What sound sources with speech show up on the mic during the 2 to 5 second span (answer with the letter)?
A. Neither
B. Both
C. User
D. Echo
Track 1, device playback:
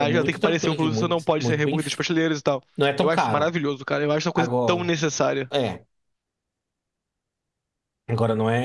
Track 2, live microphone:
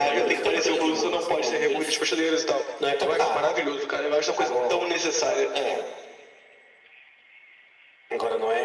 D